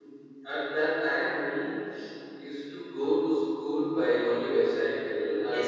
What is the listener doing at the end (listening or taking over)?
listening